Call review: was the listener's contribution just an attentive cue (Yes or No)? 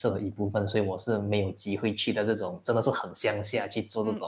No